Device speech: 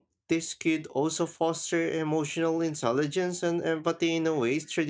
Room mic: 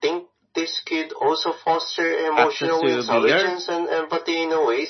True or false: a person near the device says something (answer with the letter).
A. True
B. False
A